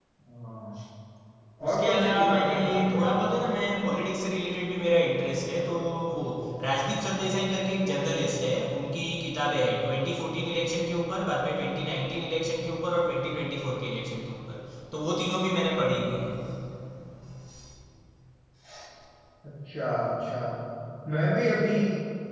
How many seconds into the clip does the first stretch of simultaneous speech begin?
1.6 s

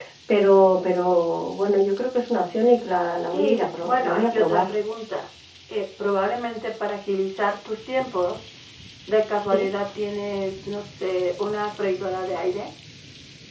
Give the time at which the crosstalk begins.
3.3 s

